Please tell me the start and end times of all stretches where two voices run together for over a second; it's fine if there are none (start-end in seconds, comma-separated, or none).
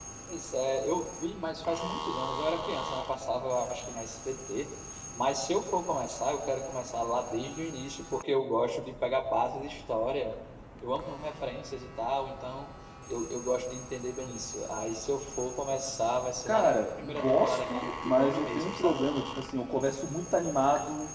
16.5-19.0